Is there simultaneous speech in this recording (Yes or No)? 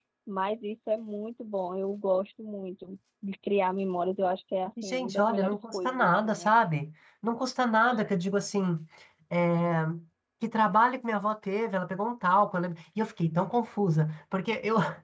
Yes